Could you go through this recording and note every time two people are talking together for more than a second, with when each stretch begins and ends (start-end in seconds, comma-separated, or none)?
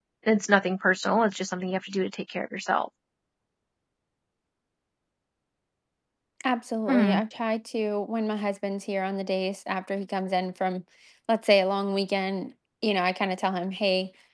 none